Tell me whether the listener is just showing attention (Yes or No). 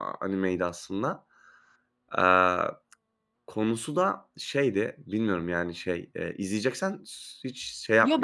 No